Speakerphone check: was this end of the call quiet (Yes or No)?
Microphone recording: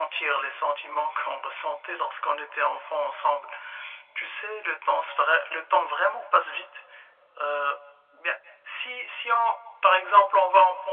Yes